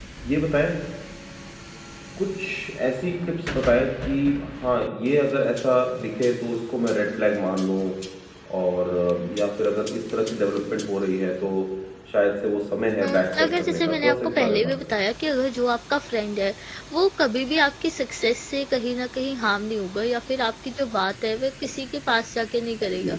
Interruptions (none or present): present